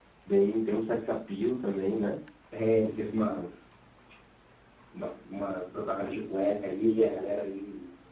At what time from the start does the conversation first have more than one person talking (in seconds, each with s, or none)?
none